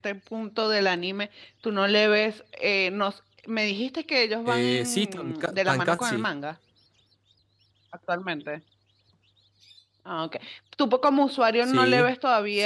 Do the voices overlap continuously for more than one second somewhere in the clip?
Yes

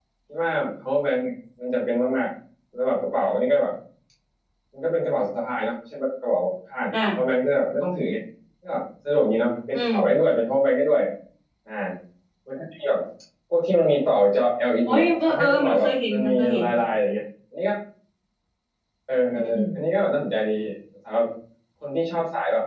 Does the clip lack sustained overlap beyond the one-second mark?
No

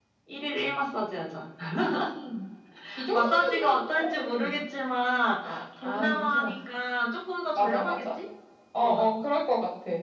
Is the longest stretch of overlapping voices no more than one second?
No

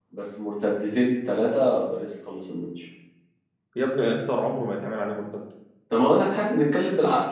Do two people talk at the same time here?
No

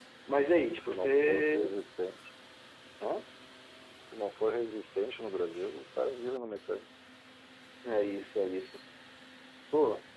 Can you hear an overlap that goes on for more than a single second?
Yes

